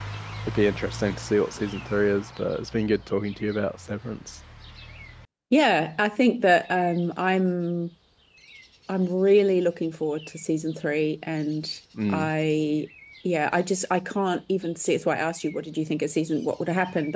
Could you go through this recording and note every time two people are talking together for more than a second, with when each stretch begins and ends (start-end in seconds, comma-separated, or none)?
none